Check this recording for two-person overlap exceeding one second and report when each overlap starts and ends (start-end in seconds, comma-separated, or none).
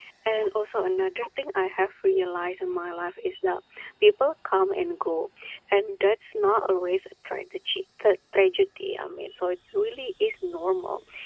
none